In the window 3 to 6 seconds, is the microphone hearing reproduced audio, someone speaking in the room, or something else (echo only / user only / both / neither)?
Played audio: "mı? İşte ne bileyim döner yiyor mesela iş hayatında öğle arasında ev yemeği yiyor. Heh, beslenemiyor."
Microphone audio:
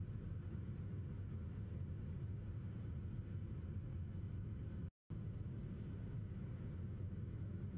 neither